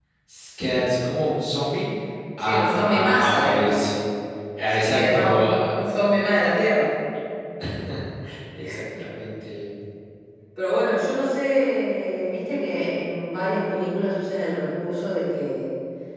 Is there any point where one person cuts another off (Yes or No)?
Yes